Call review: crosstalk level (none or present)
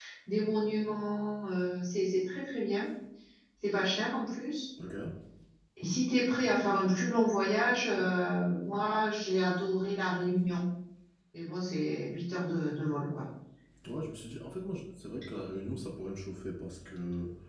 none